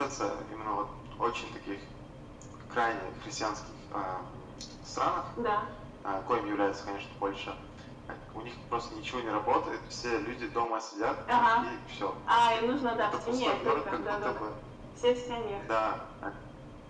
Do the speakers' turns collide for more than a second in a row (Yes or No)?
Yes